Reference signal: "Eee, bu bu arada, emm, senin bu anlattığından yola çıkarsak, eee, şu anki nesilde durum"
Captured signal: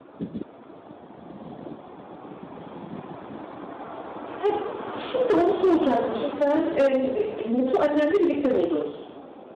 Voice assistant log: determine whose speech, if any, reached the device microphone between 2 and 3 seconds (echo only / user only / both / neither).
neither